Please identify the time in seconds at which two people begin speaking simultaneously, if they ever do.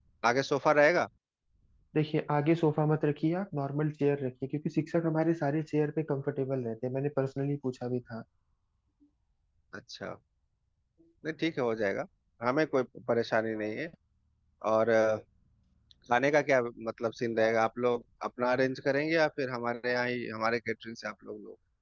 none

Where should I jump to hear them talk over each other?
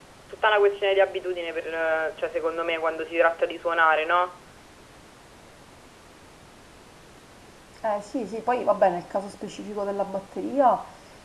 none

